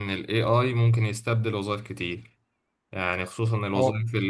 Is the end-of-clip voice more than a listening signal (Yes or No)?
No